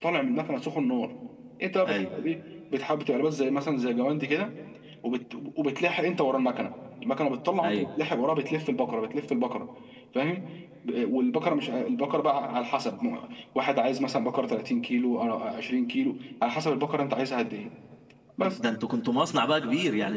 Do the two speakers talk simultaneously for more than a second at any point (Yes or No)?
No